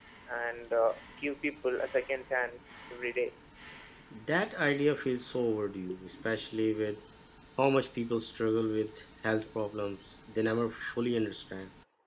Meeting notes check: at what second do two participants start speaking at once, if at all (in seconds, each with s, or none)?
none